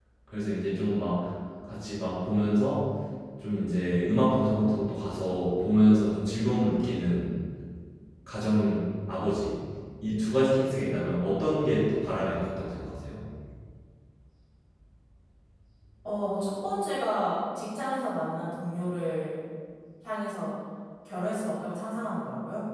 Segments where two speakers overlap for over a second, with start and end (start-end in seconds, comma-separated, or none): none